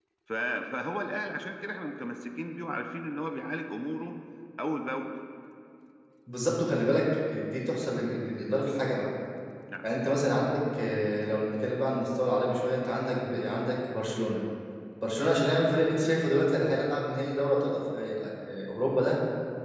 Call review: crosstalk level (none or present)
none